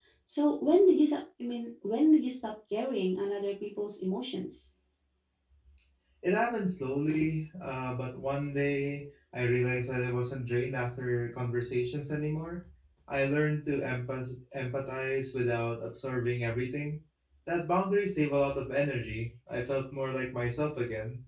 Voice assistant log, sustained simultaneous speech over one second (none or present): none